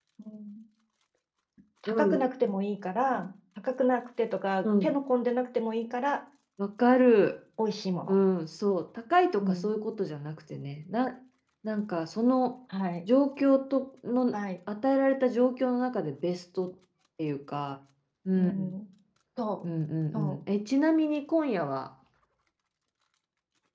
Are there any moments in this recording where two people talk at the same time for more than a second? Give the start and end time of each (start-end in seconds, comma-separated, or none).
none